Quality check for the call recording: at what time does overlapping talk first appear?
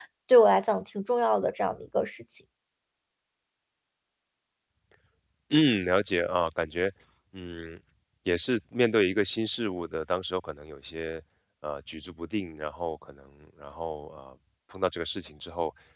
none

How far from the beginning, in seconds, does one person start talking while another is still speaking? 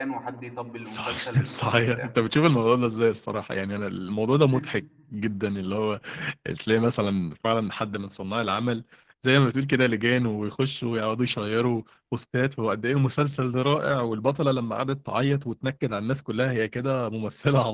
0.9 s

